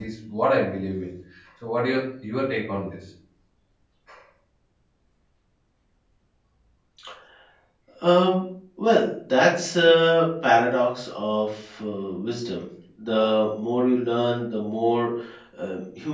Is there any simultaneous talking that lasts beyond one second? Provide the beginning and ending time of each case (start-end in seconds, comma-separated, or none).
none